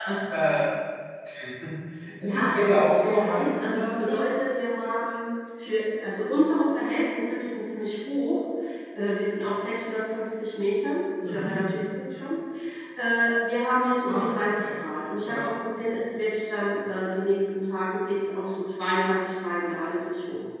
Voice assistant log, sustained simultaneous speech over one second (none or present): present